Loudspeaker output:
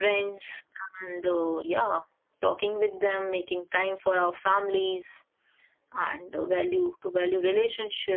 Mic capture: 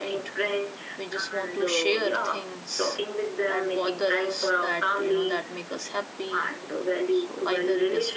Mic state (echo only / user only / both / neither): both